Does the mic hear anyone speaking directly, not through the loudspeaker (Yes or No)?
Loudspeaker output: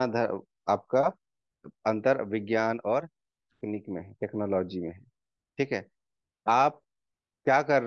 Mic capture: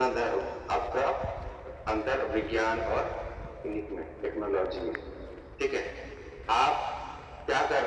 No